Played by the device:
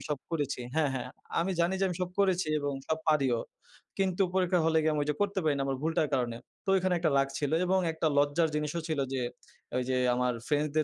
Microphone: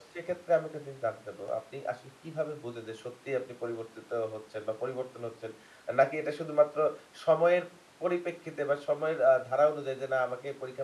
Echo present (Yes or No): No